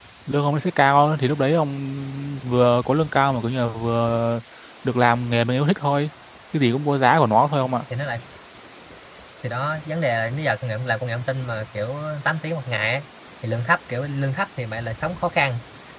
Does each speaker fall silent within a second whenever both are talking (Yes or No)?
Yes